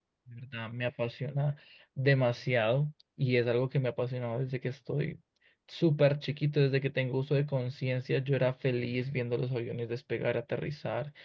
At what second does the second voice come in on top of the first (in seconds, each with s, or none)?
none